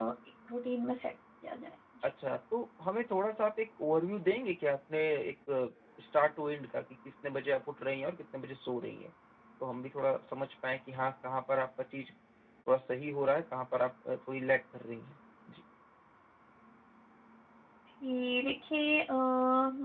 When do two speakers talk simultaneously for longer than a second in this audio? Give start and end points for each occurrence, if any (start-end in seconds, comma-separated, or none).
none